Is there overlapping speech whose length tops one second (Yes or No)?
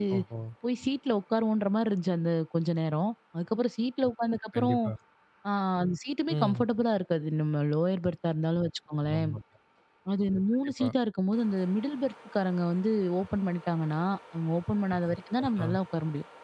No